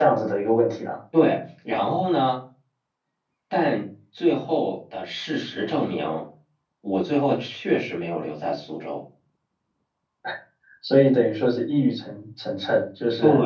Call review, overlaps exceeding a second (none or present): none